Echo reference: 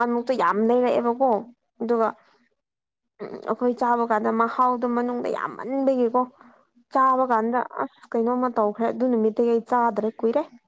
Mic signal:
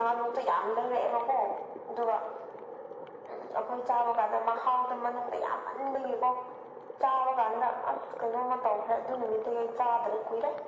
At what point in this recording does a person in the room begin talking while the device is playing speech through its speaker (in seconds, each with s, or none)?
none